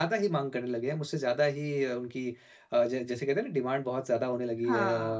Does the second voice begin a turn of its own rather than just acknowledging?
No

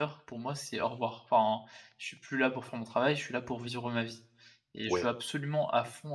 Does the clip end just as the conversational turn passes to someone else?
No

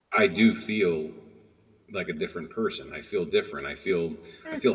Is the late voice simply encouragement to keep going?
No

